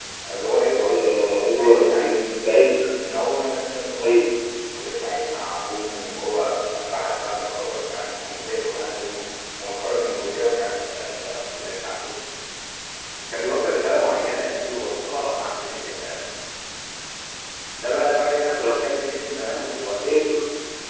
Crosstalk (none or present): present